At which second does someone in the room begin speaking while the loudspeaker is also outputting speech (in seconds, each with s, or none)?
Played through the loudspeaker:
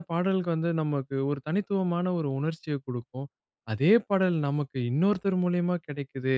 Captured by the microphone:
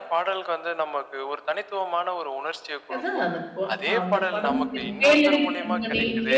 2.9 s